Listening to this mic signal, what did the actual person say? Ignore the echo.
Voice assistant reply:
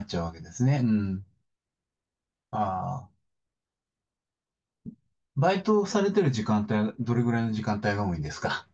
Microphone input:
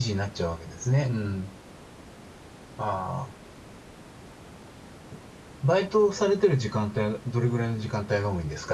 none

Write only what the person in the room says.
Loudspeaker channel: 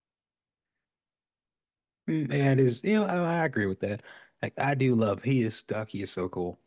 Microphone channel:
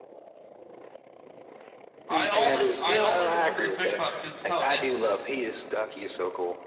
I only I only remember the fish pot because that's how it ends

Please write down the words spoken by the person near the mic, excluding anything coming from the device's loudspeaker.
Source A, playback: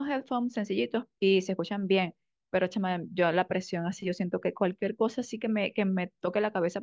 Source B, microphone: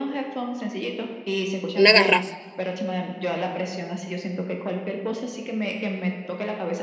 Una garrafa.

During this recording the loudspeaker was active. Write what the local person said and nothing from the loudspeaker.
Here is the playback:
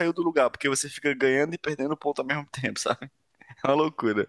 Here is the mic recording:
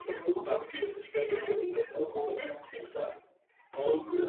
none

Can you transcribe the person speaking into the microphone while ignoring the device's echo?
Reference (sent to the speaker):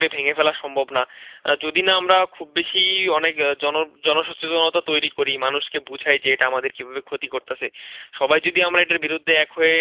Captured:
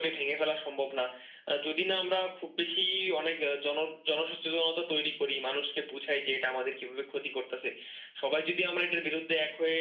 none

